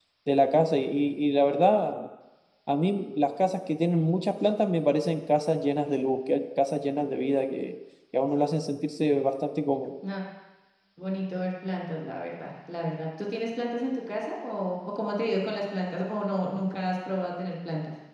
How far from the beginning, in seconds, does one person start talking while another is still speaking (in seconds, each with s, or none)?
none